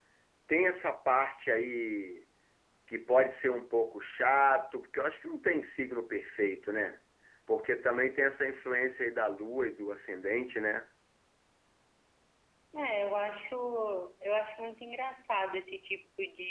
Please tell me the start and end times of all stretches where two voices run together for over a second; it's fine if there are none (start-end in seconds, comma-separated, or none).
none